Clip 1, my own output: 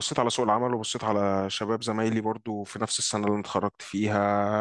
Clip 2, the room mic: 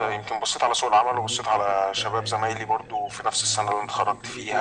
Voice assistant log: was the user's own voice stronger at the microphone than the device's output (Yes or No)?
No